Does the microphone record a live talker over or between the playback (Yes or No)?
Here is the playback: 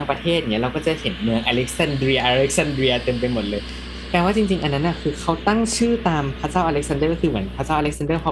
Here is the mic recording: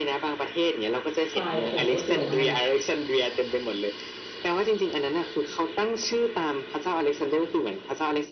Yes